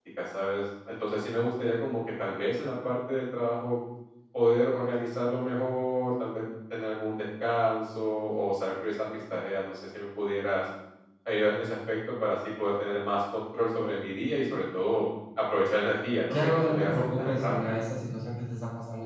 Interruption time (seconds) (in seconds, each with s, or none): 16.3 s